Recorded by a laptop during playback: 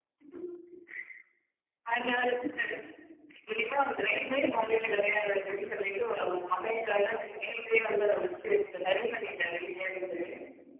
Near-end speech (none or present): none